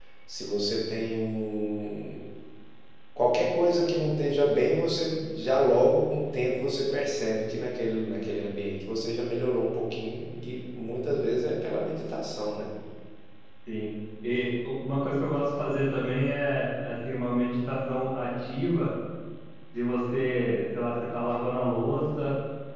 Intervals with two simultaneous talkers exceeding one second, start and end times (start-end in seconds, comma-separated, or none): none